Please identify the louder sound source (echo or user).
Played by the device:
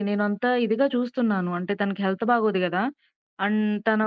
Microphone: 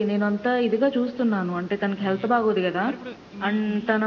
echo